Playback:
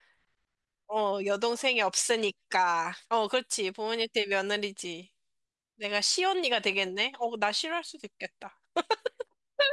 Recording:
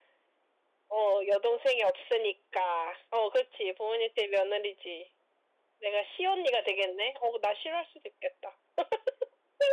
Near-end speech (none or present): none